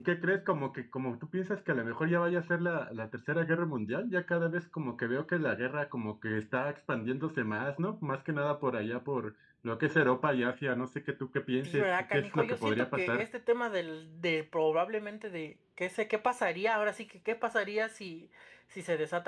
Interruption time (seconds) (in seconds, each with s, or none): 11.6 s